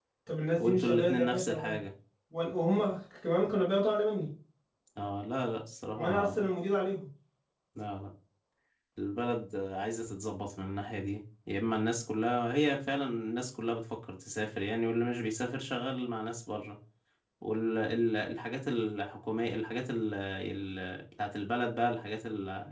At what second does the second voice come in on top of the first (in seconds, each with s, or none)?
0.6 s